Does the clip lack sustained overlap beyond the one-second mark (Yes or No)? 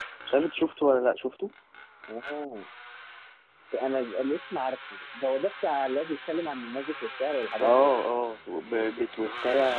Yes